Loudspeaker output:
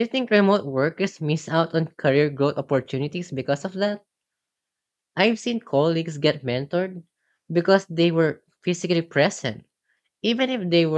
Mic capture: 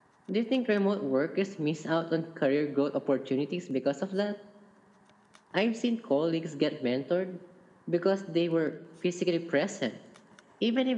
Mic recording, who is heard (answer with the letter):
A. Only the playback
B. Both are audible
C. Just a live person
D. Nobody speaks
A